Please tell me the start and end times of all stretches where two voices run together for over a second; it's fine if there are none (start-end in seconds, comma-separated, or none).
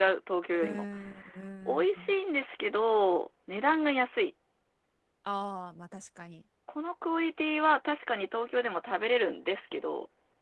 none